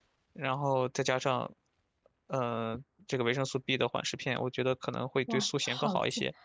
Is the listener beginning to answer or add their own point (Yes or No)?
Yes